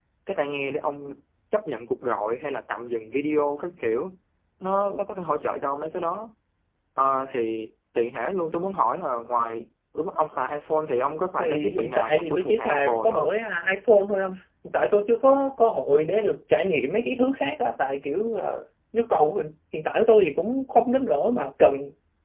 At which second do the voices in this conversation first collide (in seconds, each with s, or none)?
11.4 s